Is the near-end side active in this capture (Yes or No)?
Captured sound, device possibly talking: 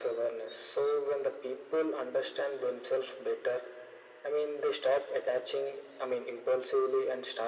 No